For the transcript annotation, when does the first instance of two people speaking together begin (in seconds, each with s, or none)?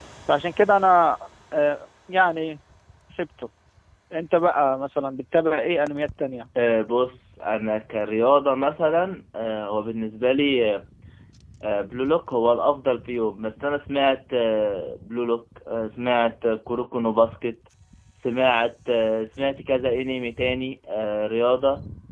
none